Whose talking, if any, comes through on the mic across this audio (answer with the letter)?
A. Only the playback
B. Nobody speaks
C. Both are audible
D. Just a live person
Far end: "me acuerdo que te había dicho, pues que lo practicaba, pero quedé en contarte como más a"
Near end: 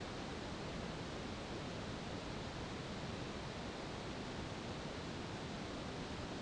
B